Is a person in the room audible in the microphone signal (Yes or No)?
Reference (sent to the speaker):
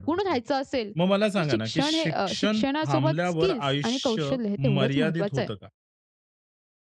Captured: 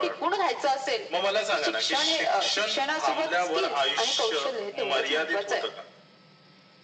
No